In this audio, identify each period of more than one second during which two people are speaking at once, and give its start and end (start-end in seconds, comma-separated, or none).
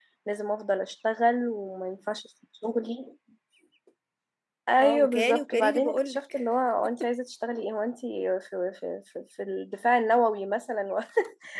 4.8-6.2